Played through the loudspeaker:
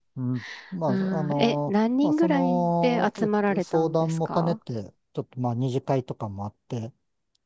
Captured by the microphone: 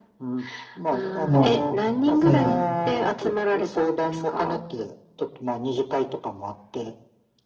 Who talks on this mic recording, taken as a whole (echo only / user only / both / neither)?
both